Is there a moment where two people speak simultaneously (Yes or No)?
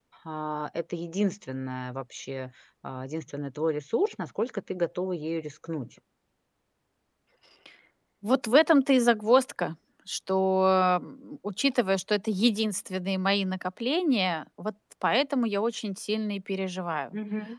No